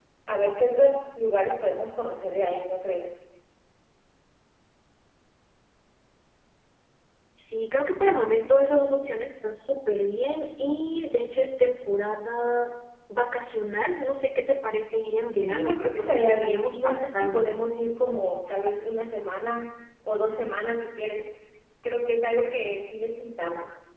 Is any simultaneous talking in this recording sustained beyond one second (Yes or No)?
Yes